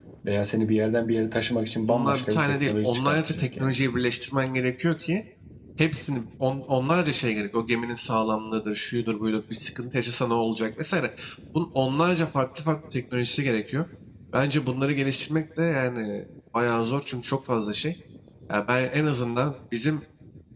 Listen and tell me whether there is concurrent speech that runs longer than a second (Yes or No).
Yes